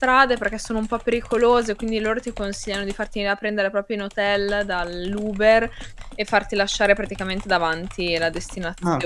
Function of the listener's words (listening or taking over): taking over